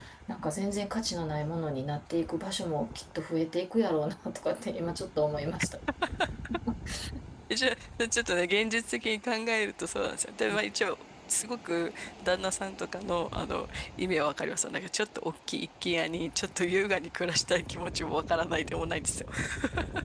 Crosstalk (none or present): none